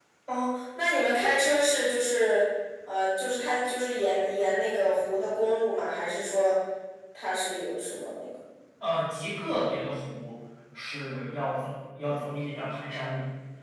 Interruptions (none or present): none